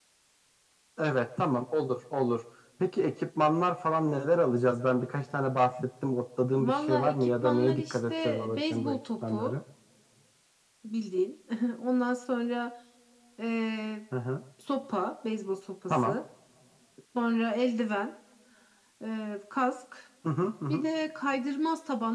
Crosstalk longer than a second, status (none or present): present